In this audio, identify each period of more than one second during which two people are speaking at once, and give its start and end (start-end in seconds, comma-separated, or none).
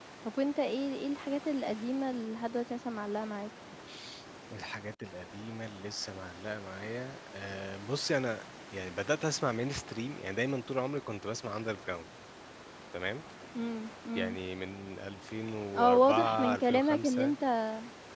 15.8-17.4